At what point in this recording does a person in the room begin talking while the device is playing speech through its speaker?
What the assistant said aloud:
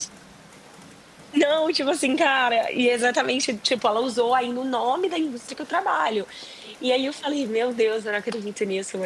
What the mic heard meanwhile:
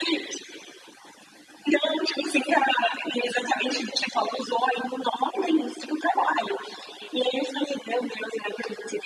none

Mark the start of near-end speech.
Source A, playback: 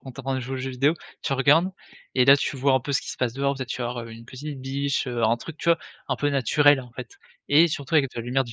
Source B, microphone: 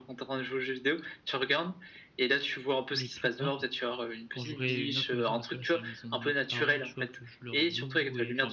2.9 s

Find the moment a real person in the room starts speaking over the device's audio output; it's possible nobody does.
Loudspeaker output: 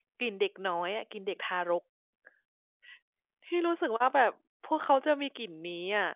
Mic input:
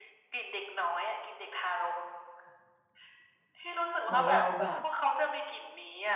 4.0 s

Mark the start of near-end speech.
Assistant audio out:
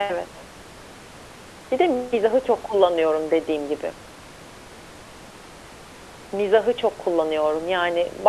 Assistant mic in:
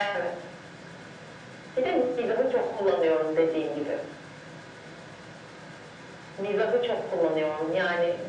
none

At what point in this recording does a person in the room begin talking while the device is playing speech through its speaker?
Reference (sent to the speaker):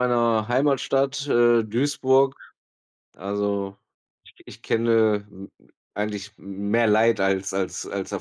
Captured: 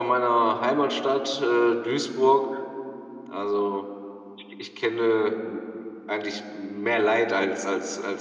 none

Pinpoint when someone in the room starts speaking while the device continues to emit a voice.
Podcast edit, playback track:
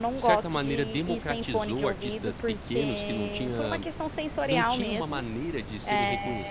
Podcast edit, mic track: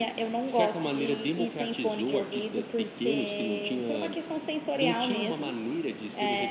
none

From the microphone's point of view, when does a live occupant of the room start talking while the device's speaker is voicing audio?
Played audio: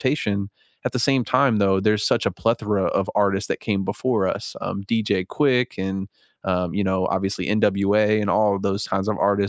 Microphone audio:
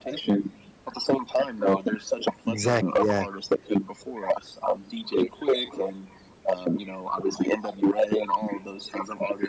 2.5 s

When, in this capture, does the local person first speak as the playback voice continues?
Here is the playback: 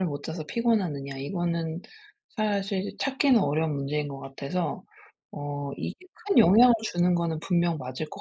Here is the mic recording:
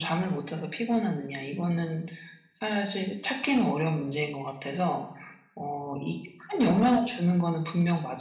none

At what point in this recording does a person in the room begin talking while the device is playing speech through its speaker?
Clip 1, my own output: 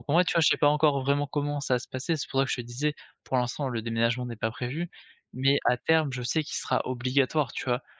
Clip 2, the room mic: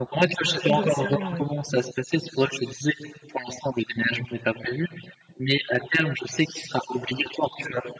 0.7 s

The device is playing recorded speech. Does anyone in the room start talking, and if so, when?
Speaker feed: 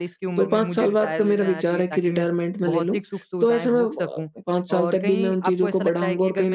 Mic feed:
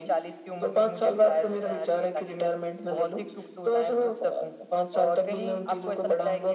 none

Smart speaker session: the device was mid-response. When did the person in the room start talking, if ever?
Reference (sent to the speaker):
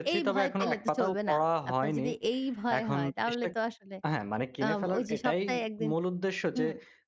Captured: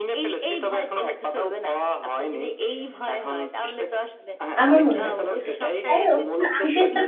4.6 s

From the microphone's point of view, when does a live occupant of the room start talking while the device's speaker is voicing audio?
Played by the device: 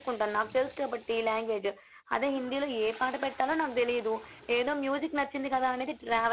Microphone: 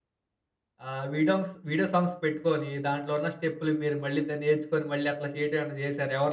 0.9 s

